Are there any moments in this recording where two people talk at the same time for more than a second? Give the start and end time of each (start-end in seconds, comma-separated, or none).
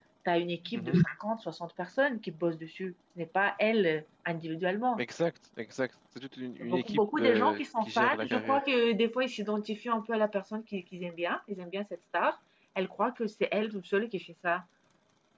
6.6-8.6